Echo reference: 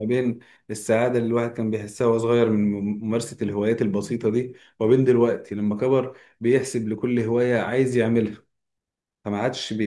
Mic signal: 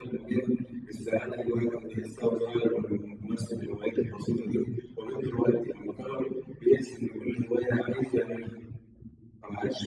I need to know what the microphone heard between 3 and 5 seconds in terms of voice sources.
echo only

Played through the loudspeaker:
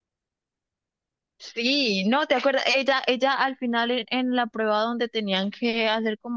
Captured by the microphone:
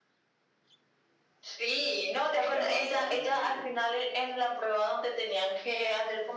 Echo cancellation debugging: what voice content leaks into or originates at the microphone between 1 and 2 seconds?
echo only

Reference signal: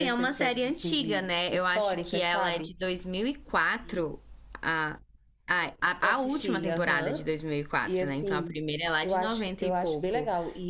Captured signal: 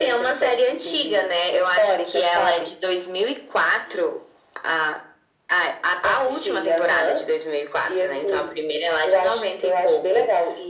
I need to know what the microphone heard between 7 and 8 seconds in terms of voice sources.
echo only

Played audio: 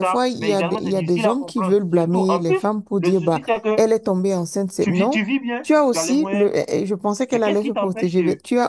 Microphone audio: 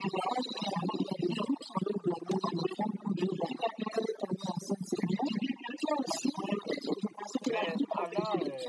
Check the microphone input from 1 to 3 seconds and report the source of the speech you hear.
echo only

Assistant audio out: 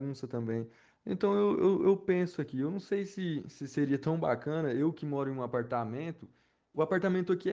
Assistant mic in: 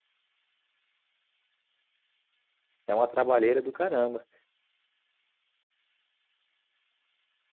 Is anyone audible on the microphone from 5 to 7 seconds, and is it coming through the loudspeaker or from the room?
neither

